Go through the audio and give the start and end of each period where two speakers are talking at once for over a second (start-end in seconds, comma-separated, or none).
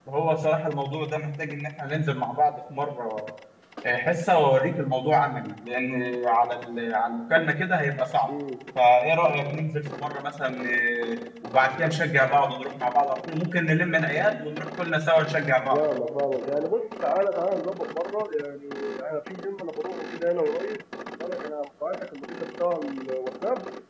none